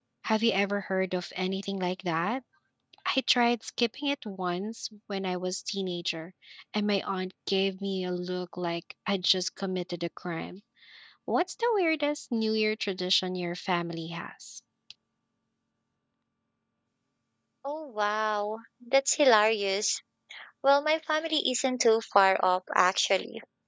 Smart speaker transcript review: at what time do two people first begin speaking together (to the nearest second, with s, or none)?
none